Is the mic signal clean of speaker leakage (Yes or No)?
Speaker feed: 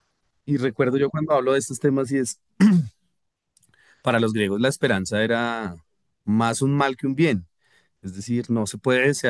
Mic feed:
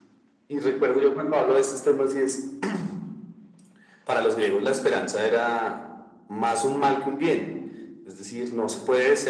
No